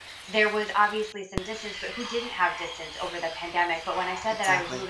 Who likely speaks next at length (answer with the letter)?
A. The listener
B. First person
B